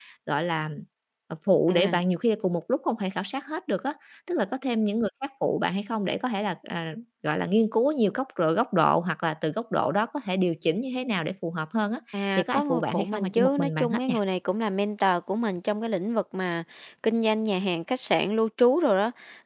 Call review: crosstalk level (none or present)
present